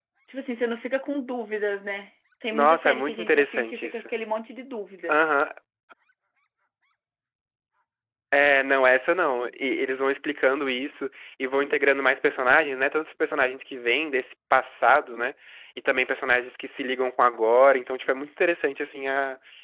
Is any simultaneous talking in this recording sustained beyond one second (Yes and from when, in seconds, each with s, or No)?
Yes, from 2.5 s